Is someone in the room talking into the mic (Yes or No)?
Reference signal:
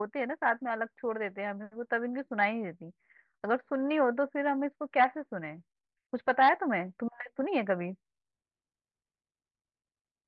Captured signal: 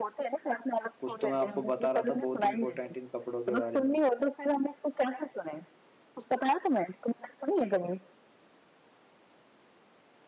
Yes